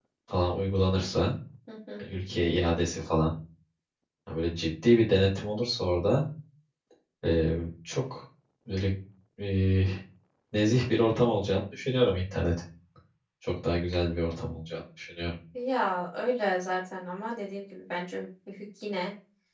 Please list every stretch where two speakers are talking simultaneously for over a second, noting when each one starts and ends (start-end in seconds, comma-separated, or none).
none